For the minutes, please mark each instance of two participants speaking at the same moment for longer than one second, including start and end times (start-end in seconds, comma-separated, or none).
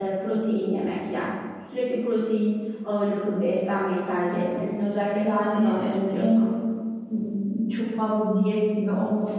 5.2-6.5